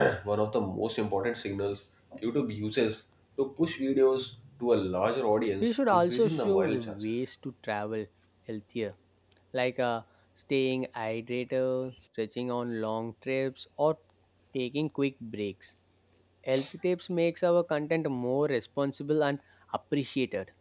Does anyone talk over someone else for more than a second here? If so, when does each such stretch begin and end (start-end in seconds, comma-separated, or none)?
5.6-7.0